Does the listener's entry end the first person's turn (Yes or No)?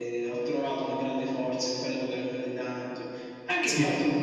No